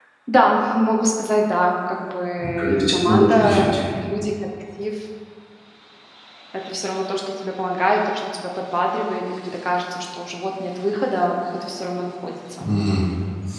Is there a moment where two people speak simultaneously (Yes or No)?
Yes